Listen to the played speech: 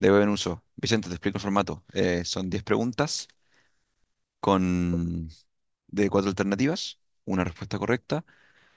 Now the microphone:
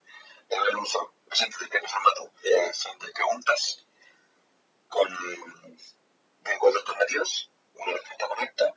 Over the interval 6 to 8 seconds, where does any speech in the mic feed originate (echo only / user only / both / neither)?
echo only